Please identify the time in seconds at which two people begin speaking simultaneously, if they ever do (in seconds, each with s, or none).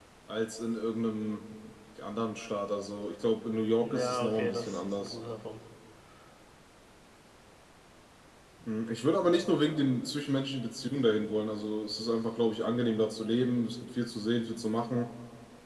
3.8 s